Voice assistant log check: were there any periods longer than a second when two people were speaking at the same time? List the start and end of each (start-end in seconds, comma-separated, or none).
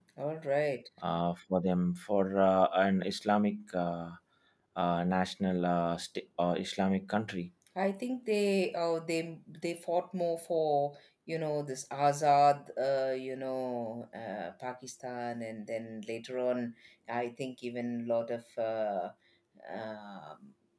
none